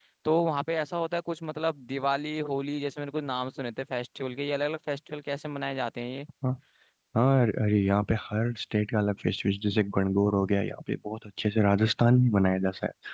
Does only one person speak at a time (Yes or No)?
Yes